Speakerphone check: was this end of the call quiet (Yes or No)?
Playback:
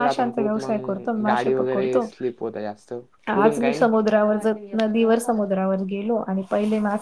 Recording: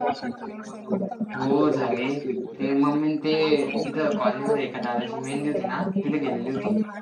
No